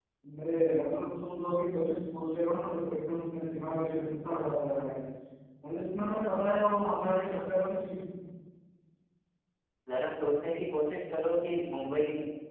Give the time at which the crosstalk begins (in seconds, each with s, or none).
none